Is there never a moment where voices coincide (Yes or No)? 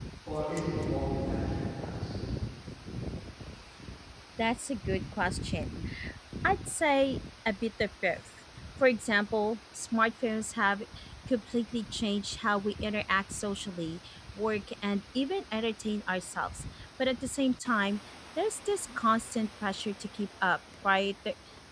Yes